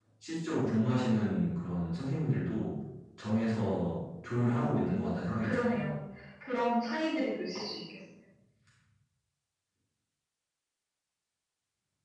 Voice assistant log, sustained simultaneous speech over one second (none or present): present